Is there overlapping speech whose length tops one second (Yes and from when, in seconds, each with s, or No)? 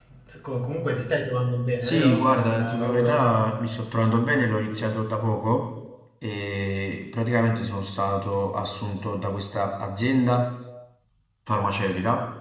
Yes, from 1.8 s